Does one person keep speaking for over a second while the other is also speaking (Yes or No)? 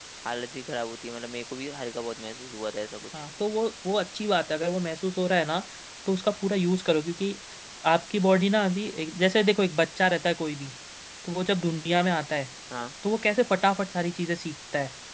No